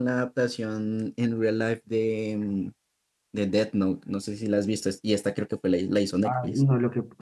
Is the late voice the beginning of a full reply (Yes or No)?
Yes